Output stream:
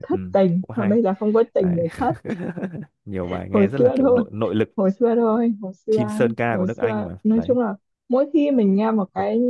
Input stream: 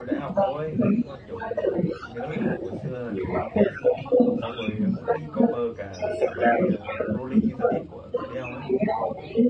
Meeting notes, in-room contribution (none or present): present